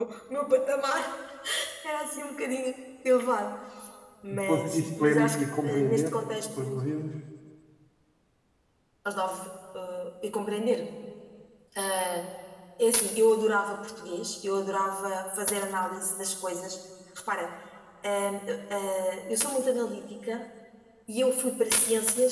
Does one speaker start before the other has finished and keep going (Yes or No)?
Yes